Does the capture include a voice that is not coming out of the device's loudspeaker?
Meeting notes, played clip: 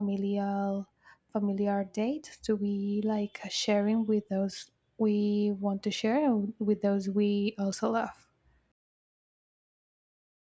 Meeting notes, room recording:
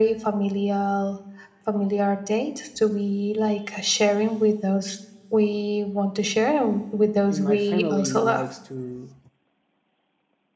Yes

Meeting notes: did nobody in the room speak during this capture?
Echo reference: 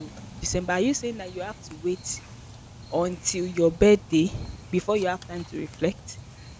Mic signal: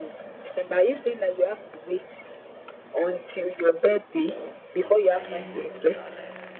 No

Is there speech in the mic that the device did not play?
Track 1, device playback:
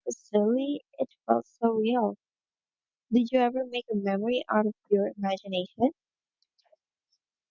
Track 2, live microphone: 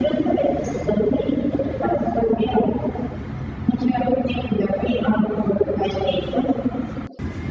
No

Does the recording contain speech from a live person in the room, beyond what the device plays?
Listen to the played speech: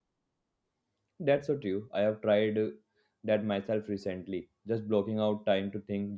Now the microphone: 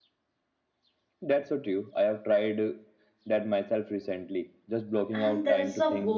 Yes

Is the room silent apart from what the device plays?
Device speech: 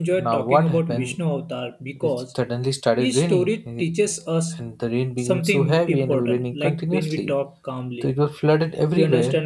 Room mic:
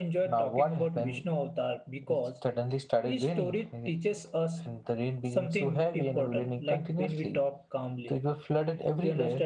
Yes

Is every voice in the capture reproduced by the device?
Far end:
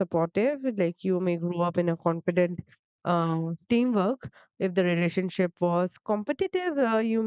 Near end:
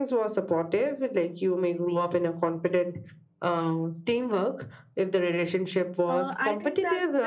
No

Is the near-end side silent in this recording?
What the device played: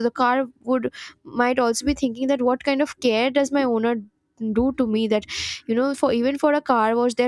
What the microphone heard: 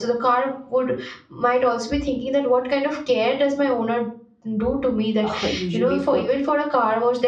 No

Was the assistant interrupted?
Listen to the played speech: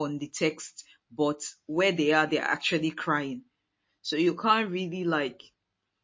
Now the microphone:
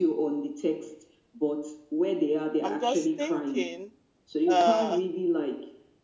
Yes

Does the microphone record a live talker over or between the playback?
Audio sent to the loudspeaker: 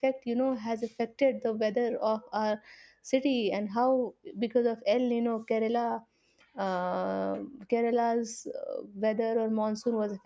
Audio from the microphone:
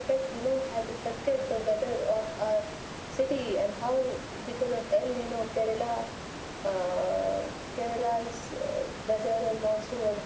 No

